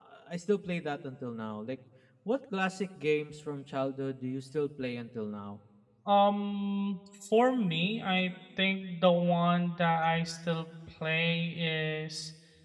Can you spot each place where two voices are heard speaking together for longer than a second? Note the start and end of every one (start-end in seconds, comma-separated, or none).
none